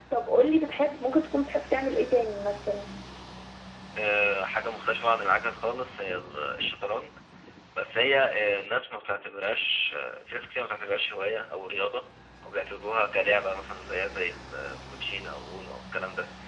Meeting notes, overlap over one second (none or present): none